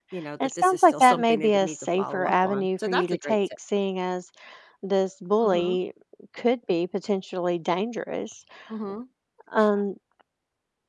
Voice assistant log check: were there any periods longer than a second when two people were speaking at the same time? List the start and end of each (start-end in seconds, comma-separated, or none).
0.6-3.5